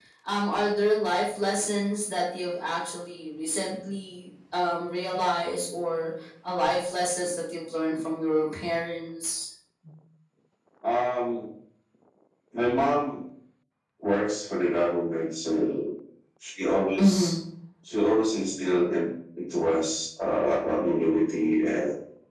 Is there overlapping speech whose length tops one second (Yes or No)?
No